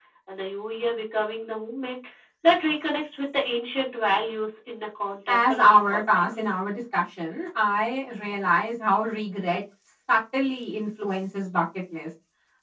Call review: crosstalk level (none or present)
present